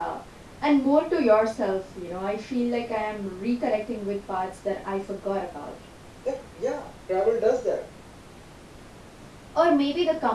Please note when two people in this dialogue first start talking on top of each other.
none

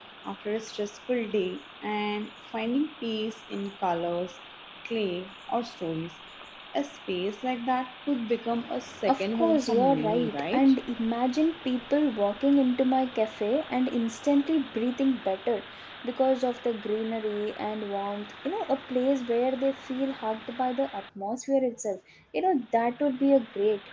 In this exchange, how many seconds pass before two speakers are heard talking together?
9.1 s

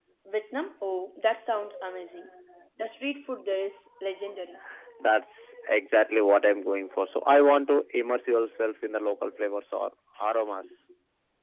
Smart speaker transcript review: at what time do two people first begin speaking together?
none

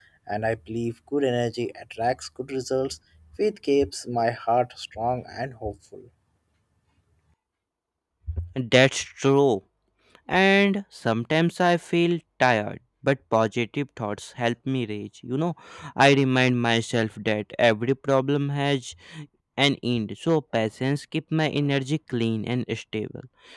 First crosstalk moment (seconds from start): none

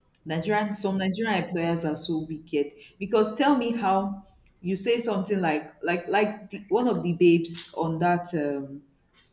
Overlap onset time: none

